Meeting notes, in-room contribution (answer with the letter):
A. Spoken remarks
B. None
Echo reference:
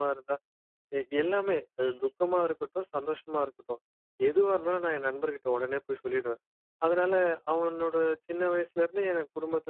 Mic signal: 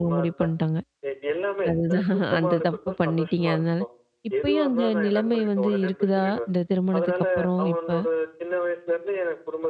A